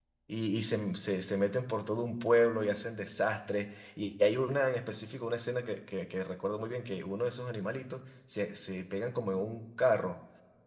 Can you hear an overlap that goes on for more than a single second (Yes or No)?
No